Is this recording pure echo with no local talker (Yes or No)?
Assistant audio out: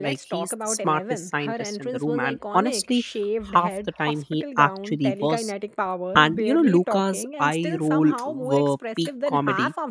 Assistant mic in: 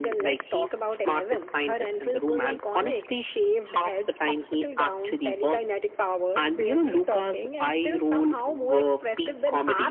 Yes